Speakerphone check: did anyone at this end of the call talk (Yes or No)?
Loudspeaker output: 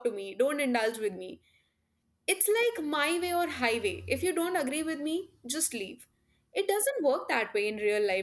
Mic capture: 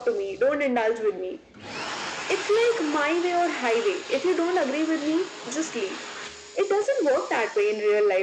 No